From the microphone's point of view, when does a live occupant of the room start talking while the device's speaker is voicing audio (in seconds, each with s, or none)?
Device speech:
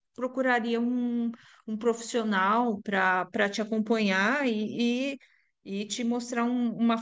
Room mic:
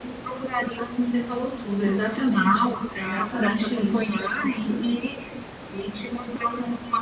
0.6 s